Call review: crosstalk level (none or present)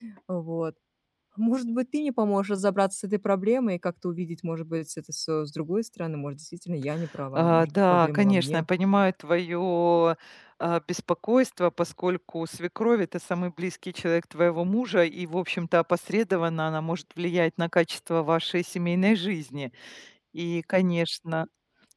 present